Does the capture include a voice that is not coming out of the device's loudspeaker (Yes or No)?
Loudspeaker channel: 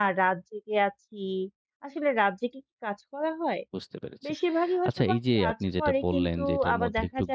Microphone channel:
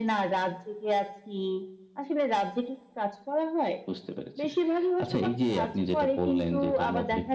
No